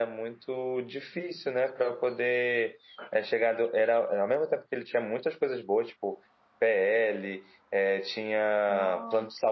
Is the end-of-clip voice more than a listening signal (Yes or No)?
No